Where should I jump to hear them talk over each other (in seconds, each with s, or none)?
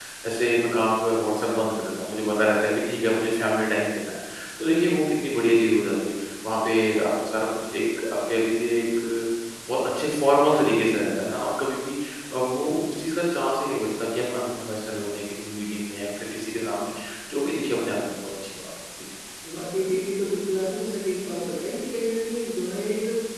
none